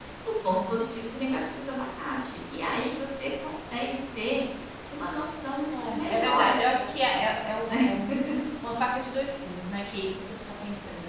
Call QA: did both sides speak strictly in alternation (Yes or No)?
No